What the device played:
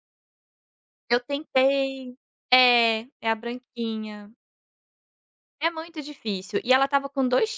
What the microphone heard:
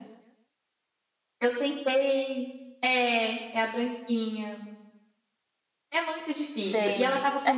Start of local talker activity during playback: 6.6 s

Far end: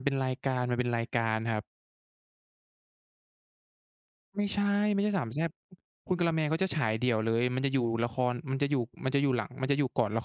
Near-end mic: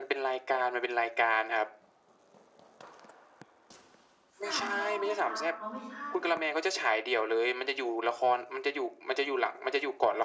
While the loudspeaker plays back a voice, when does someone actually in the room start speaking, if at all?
4.4 s

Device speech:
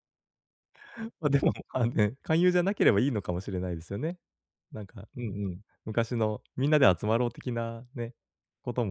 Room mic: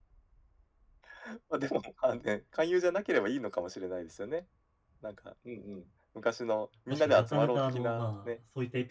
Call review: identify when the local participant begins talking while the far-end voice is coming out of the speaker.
6.9 s

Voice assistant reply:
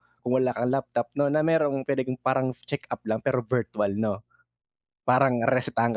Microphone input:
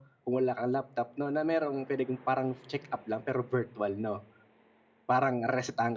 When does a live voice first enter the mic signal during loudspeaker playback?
none

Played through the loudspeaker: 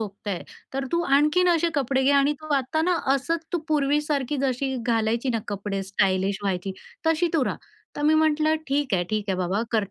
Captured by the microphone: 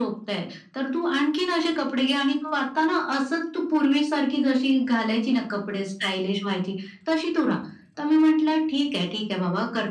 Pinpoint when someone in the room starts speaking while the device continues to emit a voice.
none

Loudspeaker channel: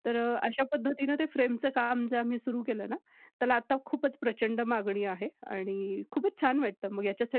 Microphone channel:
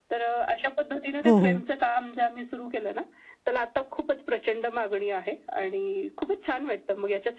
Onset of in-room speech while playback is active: 1.2 s

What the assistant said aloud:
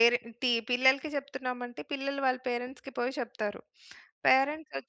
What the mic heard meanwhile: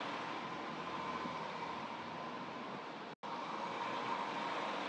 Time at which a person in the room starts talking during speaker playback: none

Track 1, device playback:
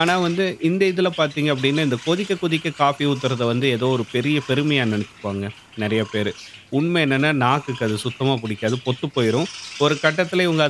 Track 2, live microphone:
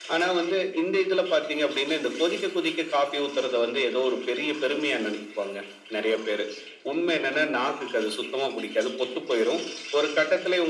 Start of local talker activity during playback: none

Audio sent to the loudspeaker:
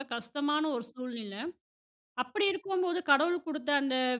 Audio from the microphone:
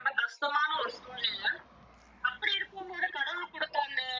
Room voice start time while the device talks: none

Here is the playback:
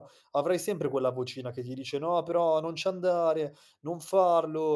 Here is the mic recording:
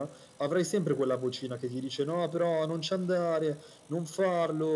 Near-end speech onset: none

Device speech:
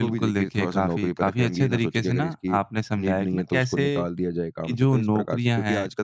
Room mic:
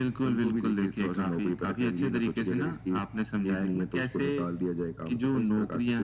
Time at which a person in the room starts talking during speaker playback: none

